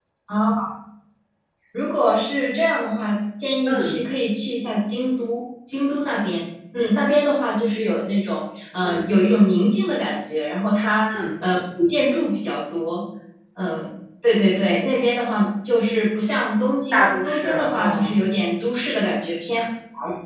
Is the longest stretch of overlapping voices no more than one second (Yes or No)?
No